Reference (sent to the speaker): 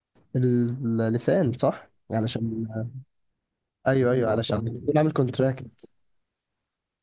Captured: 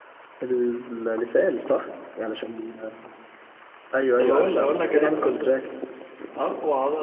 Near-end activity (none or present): present